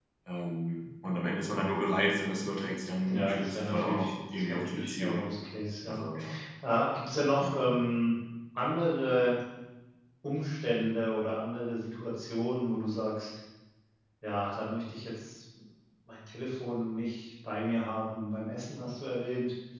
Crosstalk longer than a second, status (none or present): present